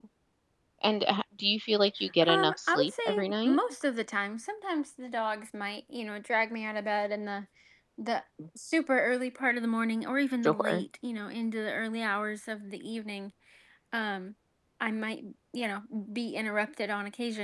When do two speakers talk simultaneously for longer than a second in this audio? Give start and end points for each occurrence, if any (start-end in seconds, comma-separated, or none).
2.3-3.6